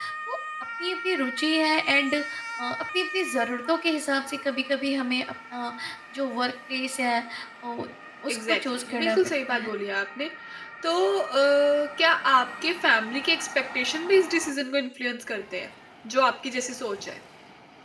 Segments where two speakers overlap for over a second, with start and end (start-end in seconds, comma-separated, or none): 8.3-9.7